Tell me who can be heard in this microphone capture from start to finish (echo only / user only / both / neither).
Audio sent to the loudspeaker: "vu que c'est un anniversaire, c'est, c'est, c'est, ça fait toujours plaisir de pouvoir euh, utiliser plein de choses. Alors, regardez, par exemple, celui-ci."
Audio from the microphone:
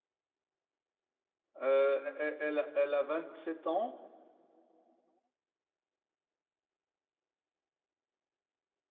user only